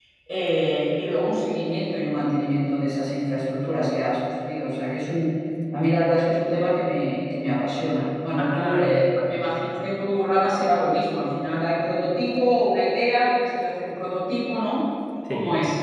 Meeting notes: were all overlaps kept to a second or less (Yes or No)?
No